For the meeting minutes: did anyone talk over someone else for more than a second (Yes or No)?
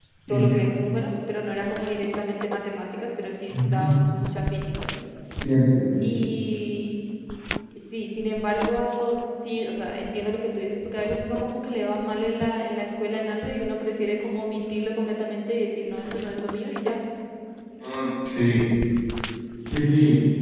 No